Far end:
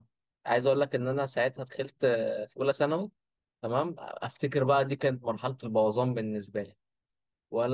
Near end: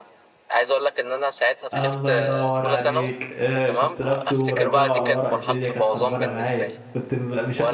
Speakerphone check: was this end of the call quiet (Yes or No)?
No